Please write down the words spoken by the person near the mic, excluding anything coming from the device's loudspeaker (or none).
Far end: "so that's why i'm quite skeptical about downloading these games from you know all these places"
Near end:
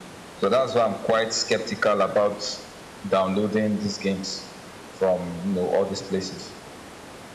none